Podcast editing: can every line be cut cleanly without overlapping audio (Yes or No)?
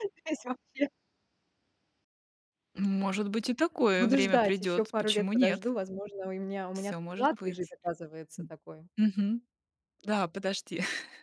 No